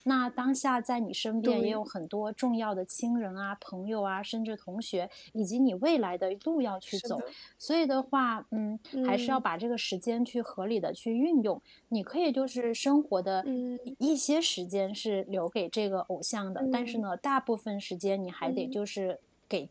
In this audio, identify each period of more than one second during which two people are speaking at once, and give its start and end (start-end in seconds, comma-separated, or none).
none